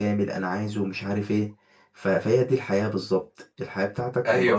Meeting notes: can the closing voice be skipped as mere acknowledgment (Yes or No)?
No